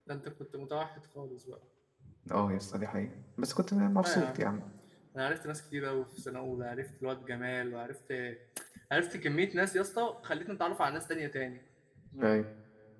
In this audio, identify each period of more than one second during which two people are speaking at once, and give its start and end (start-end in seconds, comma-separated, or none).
none